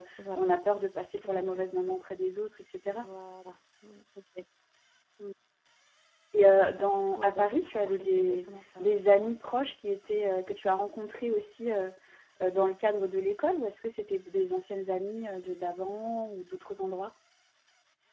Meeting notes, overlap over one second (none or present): present